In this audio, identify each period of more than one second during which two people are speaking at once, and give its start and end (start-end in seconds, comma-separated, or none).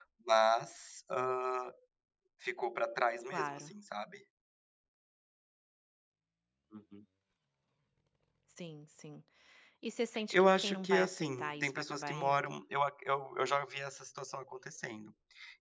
10.3-12.6